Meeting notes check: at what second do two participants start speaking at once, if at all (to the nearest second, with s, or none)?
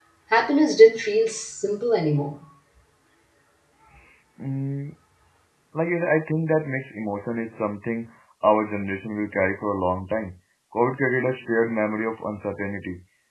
none